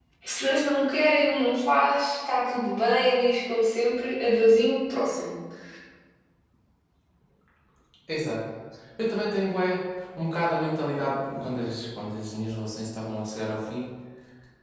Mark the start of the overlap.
none

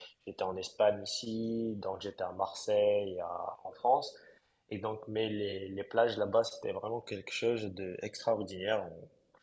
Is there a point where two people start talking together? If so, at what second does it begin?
none

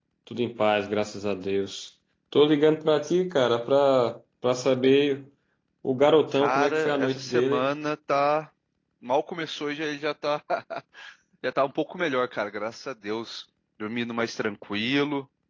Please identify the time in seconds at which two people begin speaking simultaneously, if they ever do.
6 s

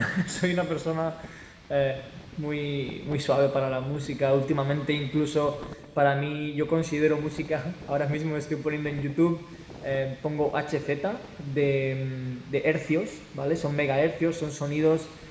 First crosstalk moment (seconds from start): none

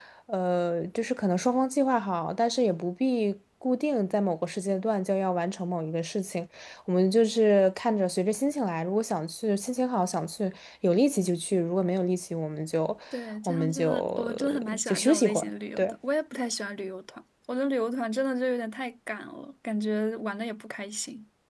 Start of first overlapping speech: 13 s

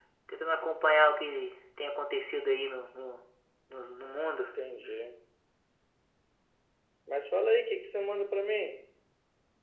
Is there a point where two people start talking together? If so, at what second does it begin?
none

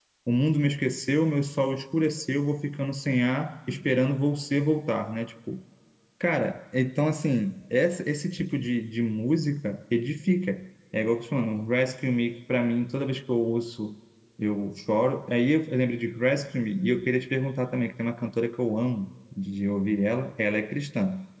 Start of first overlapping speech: none

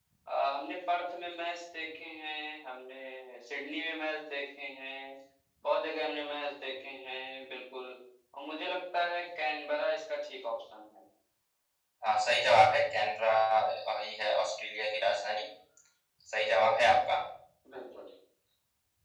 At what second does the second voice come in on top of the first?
none

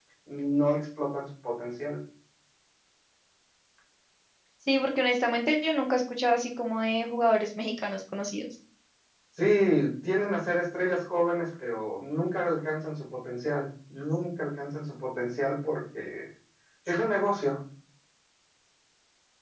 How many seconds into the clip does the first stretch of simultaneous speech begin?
none

